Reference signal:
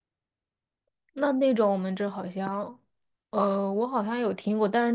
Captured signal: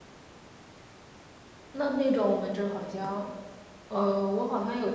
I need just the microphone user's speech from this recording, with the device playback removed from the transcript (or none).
none